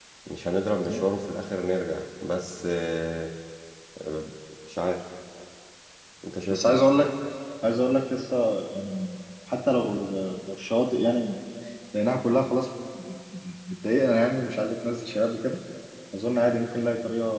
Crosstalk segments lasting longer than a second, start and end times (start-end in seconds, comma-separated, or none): none